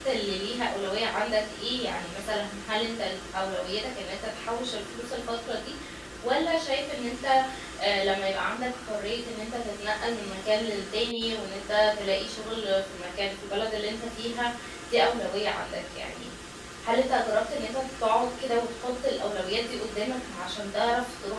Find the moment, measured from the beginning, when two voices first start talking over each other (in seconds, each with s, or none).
none